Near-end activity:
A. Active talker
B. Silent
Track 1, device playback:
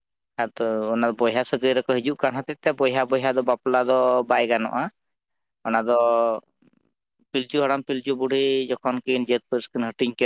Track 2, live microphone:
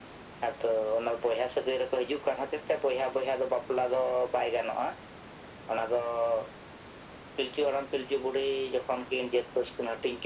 B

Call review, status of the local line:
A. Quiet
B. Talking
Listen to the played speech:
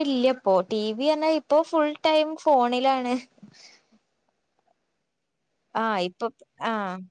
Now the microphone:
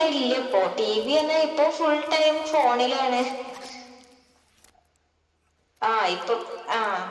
A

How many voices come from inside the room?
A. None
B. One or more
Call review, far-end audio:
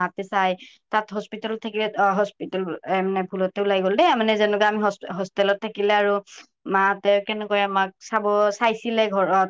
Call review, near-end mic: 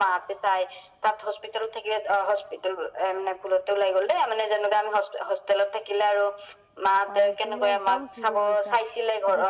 B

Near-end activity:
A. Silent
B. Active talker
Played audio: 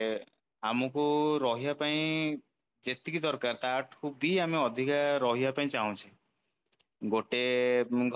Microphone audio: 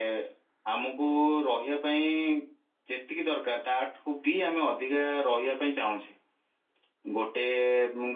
A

